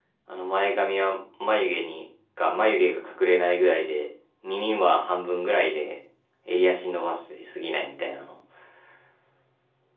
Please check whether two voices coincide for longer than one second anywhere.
No

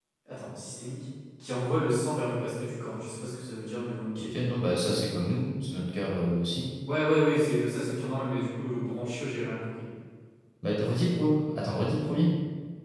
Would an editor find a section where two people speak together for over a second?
No

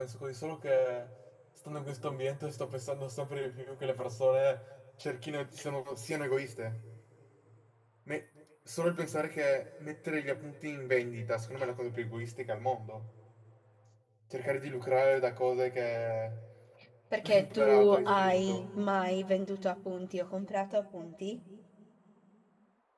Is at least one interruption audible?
Yes, from 17.2 s

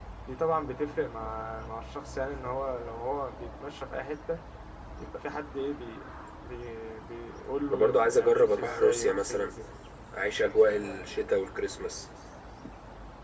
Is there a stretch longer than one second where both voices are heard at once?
Yes, from 7.7 s

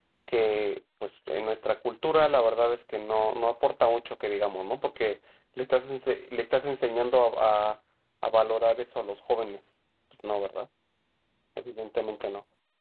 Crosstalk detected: No

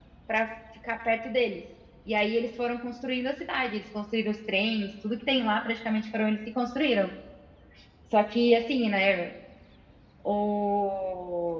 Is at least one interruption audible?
No

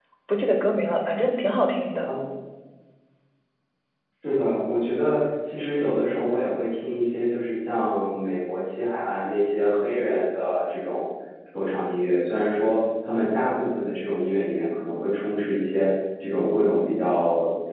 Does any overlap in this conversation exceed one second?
No

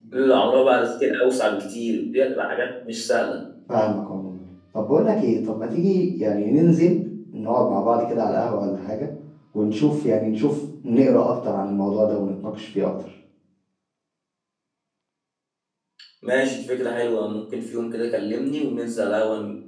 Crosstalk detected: No

